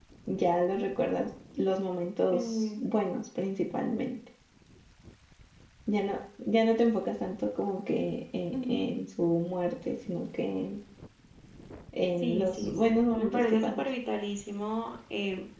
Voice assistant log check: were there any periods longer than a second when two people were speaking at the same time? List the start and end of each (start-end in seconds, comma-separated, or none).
12.2-13.9